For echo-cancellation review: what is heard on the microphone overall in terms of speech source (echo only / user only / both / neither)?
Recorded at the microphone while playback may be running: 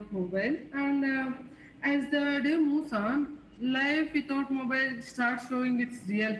echo only